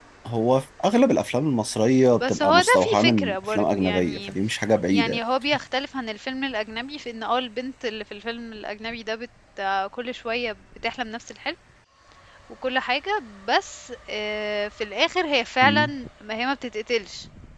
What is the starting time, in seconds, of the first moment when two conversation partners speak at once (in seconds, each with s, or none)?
2.2 s